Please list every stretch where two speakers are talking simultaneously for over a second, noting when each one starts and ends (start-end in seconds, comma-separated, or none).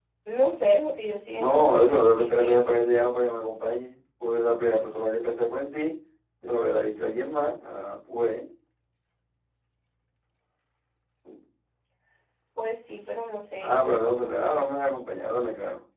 1.3-2.8